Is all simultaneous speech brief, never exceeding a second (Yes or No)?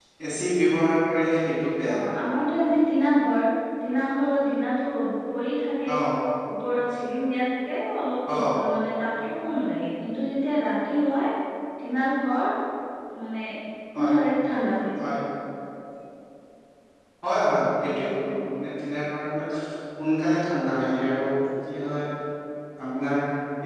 Yes